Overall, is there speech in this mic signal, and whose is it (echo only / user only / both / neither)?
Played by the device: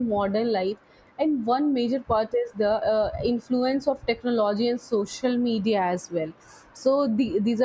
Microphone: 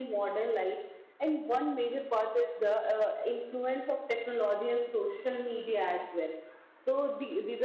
echo only